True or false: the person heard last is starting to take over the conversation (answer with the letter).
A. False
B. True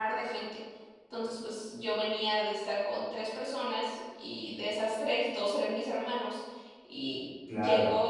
B